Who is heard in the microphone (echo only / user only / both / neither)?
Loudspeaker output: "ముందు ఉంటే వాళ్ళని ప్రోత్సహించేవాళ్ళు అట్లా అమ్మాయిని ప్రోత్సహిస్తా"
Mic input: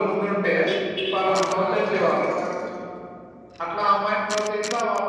both